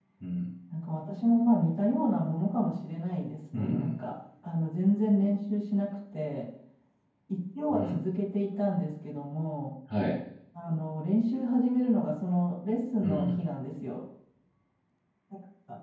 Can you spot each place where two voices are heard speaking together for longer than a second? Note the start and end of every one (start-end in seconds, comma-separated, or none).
none